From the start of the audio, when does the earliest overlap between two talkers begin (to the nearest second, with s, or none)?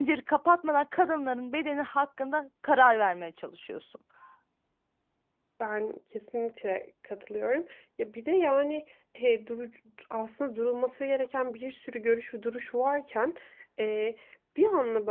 none